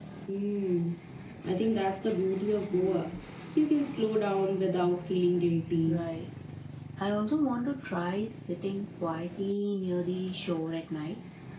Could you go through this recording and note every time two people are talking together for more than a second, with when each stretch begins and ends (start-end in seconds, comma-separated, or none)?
none